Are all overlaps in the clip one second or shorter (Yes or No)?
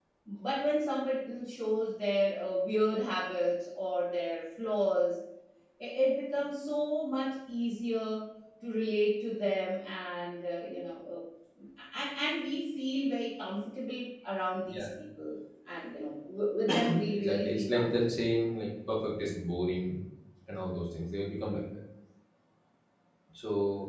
No